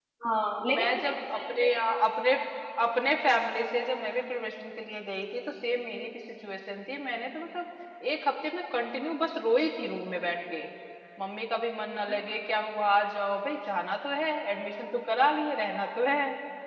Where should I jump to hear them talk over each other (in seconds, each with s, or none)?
0.7 s